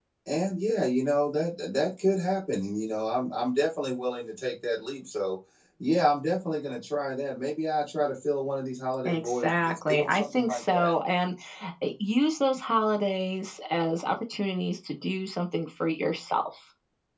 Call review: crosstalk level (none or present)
present